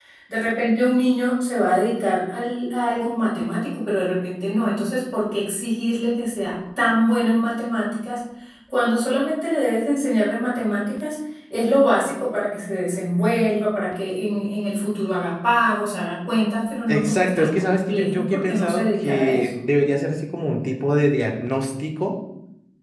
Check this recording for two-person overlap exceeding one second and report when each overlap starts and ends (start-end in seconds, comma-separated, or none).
16.9-19.6